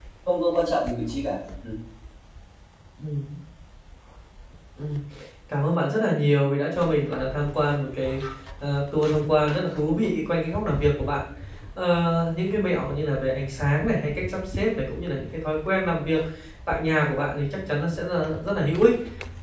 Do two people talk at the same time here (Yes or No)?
No